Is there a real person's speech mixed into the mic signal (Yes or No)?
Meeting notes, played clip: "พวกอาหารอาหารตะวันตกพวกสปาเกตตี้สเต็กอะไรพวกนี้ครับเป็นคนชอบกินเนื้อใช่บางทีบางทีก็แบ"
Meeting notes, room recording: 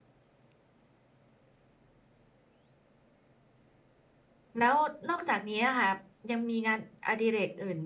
Yes